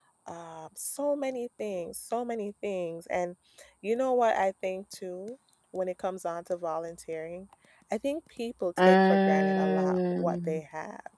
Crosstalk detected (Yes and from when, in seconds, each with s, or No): Yes, from 8.8 s